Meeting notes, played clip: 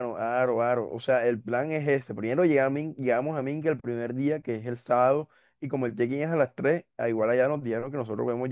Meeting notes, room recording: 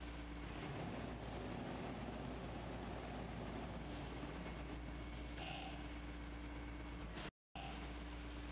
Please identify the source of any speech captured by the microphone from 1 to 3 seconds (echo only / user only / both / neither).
neither